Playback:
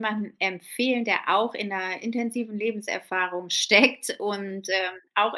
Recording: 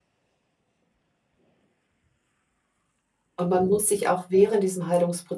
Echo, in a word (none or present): none